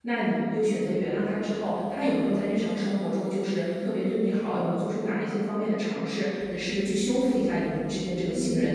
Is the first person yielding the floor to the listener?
Yes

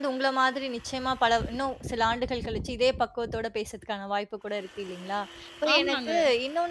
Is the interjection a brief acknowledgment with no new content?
Yes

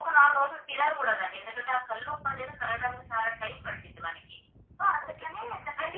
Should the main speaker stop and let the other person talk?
Yes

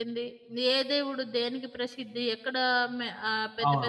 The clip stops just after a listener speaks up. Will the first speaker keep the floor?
Yes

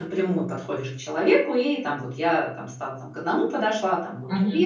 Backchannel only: No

